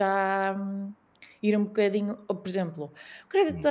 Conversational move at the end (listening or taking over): listening